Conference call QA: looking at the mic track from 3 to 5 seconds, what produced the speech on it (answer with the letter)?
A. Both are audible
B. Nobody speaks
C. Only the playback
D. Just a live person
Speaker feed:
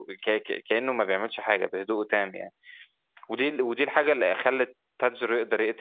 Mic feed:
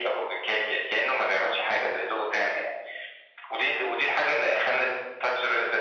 C